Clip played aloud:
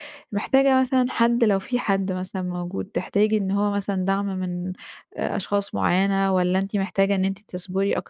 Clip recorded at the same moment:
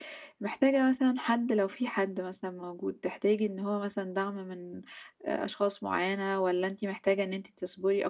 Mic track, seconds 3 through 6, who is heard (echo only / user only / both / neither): echo only